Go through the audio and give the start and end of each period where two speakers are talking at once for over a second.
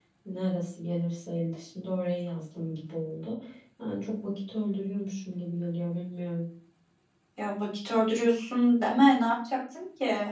none

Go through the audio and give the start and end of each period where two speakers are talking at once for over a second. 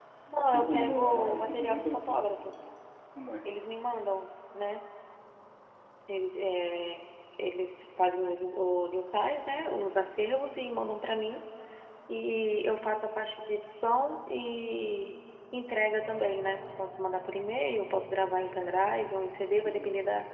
0.5-2.2

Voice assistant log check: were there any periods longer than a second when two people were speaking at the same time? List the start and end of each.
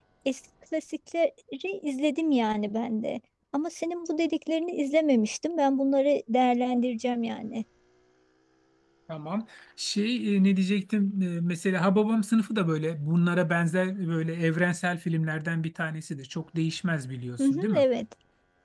none

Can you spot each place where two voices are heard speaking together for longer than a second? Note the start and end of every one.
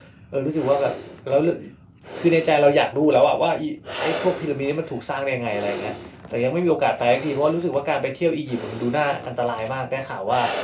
none

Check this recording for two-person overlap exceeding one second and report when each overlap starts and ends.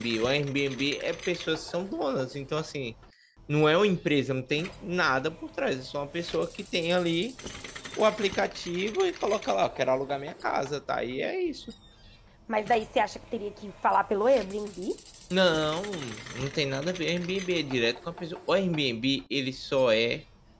none

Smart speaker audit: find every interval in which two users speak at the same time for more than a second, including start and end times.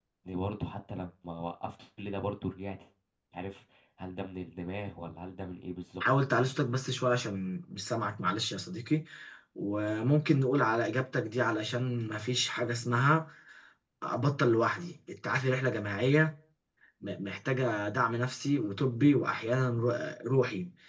none

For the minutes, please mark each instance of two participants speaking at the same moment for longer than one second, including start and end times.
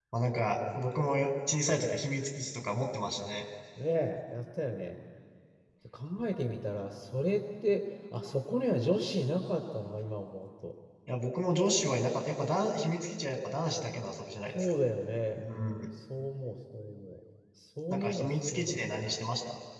17.9-19.1

